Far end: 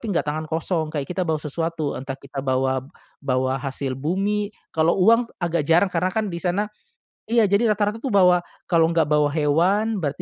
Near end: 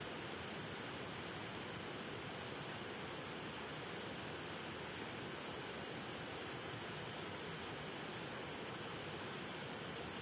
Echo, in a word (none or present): none